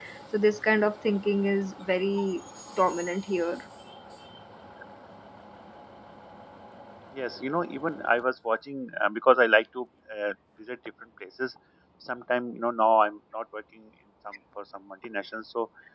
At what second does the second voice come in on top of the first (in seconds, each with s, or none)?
none